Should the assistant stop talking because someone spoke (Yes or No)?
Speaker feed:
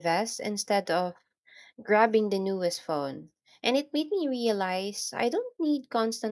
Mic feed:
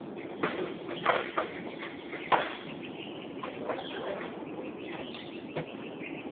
No